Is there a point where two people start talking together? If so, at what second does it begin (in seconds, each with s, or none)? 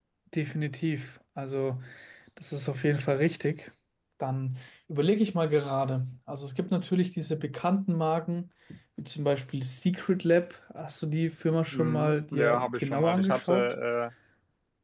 11.7 s